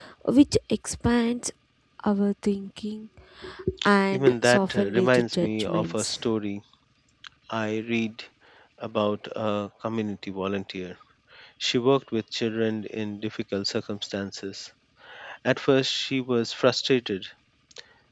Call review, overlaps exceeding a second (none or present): present